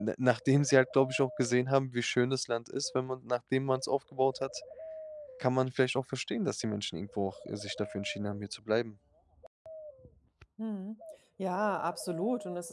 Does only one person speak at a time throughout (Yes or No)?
Yes